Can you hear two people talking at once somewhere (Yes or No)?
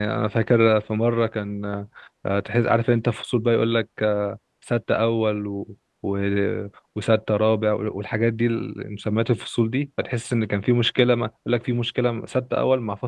No